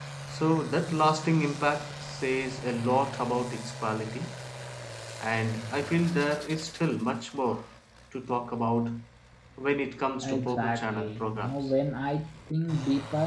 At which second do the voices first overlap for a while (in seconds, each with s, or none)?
10.2 s